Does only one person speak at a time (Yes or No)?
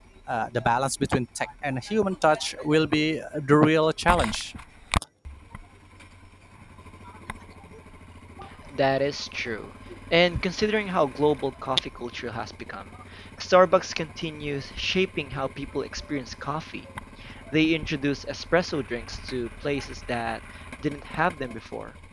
Yes